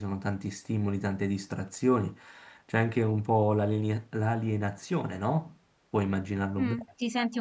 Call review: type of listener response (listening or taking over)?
taking over